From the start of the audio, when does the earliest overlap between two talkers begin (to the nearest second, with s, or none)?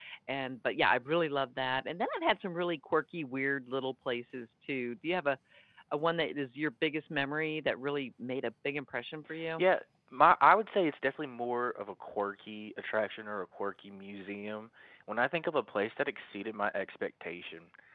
none